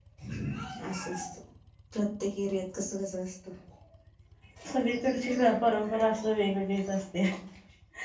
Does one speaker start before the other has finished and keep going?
No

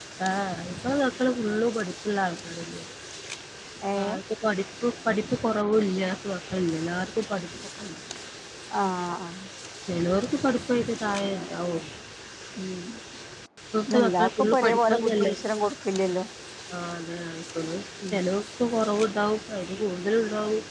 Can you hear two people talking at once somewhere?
Yes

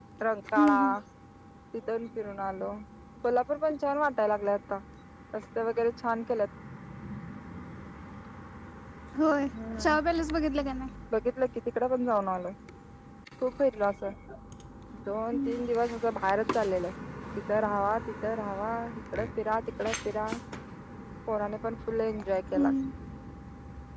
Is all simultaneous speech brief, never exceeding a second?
Yes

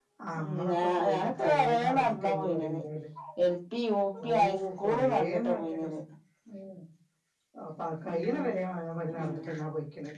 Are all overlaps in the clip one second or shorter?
No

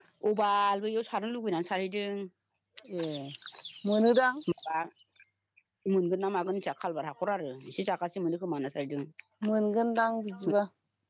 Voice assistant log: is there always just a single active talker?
Yes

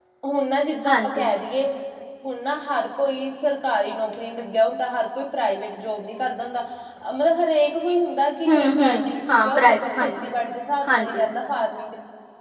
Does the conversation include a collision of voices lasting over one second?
Yes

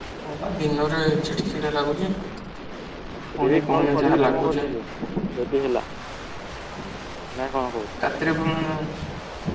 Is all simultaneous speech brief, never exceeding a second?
No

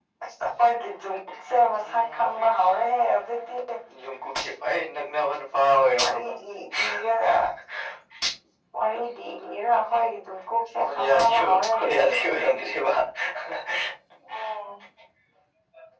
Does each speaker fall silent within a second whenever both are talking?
No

